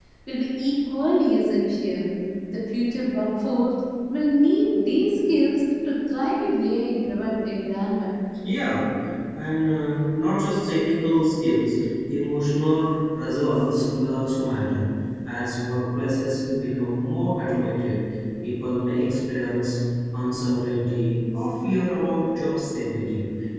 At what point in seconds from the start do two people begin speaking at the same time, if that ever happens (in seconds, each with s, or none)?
none